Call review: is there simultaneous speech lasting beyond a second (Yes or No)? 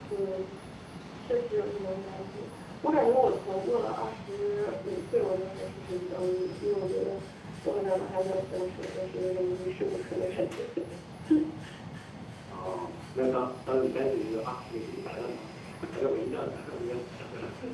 No